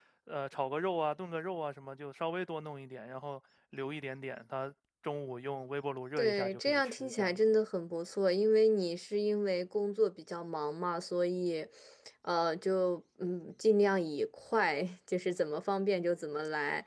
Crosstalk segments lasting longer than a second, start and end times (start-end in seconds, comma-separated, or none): 6.2-7.4